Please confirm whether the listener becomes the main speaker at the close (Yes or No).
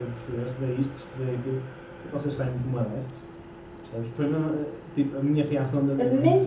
Yes